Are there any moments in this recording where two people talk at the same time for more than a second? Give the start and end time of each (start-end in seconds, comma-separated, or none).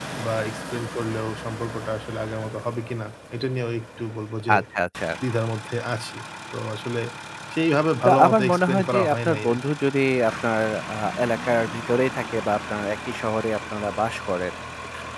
8.1-9.6